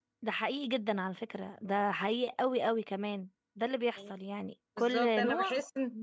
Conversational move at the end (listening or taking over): taking over